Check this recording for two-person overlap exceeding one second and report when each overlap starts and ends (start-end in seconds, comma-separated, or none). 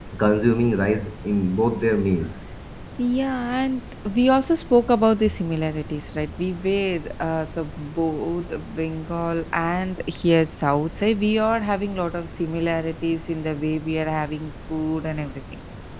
none